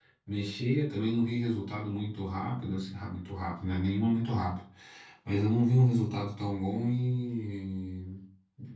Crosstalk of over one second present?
No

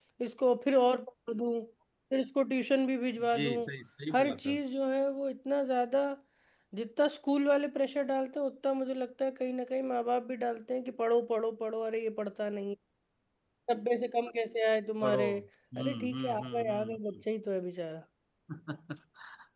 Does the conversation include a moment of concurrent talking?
Yes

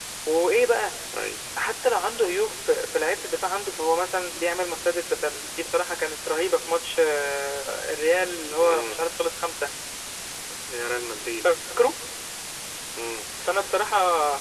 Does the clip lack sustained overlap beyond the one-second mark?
Yes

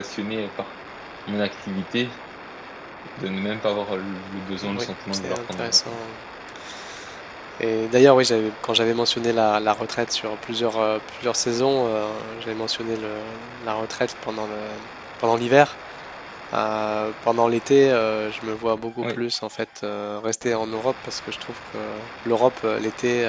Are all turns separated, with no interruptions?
No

